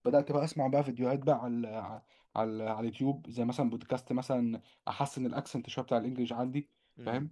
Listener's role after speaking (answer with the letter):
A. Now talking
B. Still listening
B